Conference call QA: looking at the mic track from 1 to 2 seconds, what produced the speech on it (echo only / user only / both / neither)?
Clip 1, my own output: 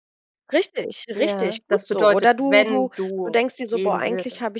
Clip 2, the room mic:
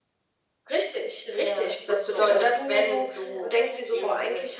echo only